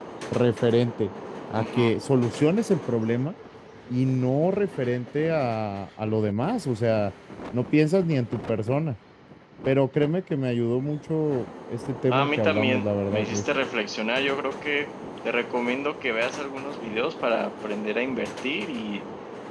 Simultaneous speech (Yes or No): Yes